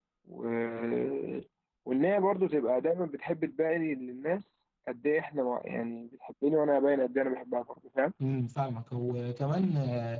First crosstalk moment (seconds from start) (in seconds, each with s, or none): none